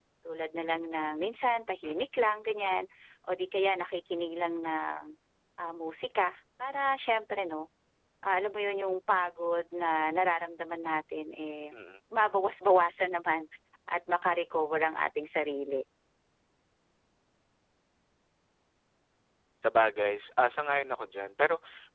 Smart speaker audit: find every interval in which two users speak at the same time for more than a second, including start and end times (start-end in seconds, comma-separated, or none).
none